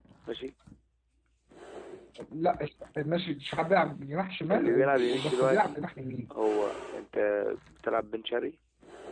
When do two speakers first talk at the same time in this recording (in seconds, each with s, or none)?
4.5 s